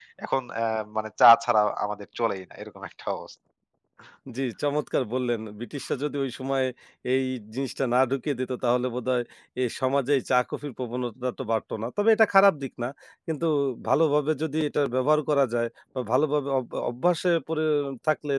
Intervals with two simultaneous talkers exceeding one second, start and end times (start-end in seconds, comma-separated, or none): none